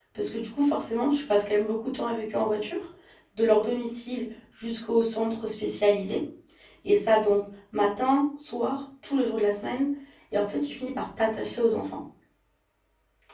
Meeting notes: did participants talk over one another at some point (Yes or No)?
No